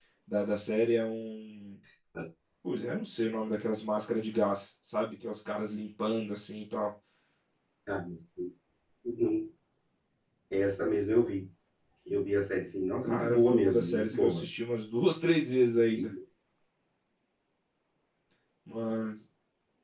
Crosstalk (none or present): present